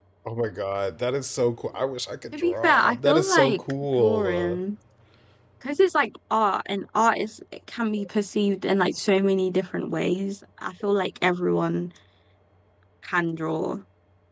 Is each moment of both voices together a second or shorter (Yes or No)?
No